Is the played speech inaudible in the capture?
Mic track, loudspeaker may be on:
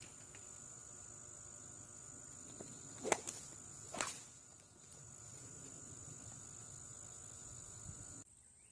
Yes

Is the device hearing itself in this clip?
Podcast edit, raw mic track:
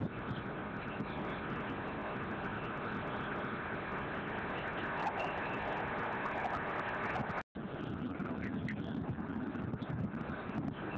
No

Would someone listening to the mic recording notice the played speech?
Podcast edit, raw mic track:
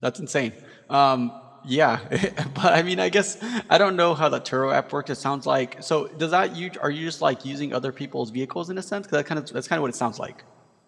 No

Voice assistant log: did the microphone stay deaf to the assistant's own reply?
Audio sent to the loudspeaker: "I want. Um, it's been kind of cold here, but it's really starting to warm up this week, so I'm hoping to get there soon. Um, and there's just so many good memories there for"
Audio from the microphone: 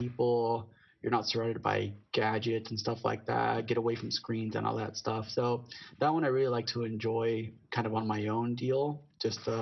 Yes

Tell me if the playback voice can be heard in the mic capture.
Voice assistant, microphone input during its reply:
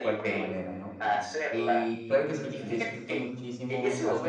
Yes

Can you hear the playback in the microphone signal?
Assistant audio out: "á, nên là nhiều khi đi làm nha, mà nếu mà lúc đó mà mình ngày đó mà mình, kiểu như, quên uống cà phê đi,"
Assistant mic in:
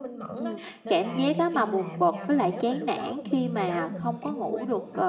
Yes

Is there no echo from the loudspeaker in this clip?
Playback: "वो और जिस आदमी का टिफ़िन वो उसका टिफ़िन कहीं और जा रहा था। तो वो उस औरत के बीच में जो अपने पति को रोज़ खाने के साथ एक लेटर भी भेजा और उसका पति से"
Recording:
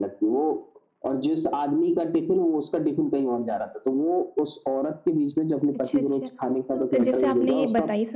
No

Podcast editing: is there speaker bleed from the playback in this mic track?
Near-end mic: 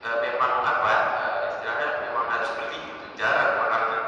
Yes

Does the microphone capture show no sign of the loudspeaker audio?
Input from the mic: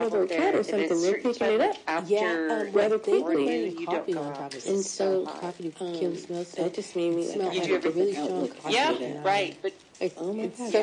No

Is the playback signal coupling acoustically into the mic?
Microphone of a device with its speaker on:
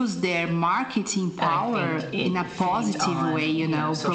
Yes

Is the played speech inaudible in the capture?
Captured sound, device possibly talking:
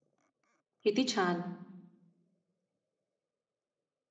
Yes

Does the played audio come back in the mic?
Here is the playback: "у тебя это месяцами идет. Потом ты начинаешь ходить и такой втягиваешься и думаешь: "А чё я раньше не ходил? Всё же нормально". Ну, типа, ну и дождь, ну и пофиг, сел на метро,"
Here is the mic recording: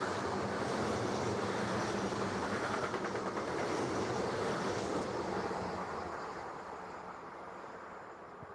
No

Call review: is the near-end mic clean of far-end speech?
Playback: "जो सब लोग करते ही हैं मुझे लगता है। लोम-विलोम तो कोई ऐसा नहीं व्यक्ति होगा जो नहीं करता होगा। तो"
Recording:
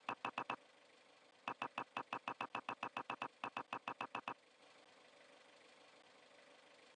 Yes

